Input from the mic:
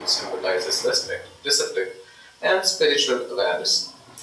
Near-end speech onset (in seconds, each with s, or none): none